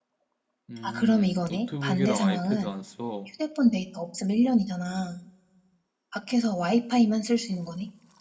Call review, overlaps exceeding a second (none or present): present